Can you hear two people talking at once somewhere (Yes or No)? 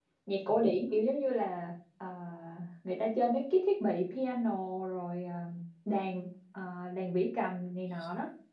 No